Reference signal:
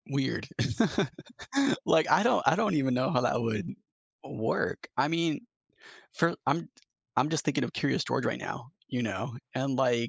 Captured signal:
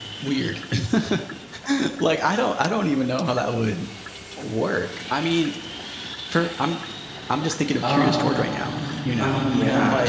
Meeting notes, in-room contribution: present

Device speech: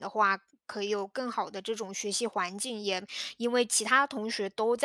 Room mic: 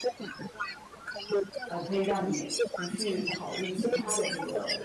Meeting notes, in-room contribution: present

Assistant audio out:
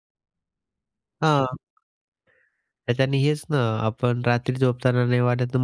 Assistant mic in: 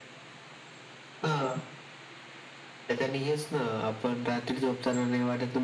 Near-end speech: none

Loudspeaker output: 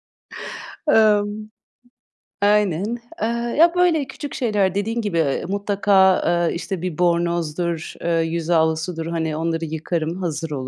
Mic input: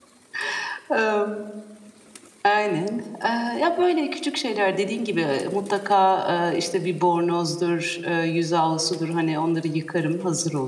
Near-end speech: none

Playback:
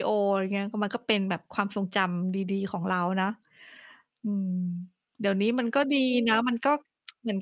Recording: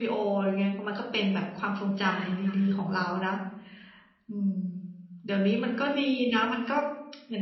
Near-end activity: present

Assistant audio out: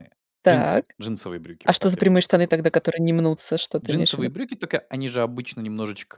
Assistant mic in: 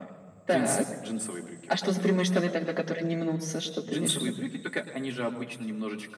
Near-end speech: none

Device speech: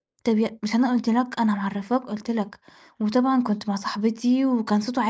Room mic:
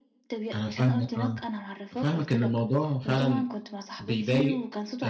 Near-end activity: present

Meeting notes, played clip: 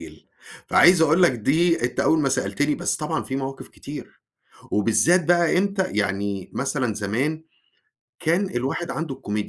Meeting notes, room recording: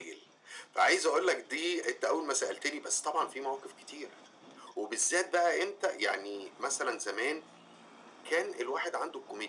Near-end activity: none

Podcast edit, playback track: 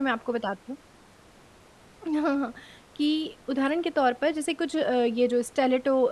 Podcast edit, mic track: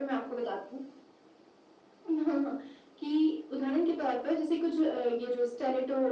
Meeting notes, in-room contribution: none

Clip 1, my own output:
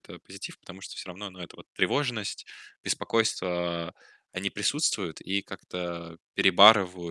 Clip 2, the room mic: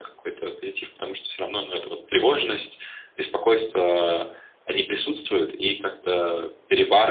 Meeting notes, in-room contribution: none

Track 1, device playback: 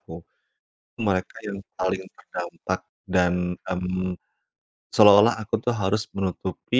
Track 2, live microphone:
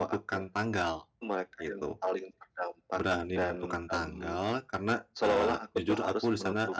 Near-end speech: present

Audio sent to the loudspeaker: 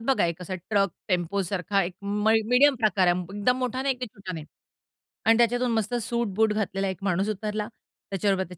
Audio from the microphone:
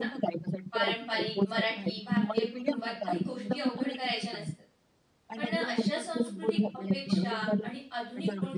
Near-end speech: present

